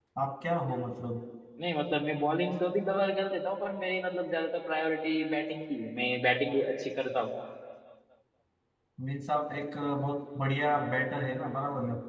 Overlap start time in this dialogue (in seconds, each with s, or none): none